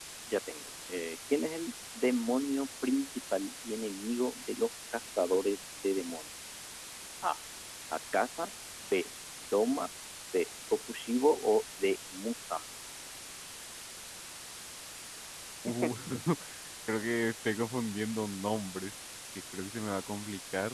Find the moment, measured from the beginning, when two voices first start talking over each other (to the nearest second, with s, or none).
none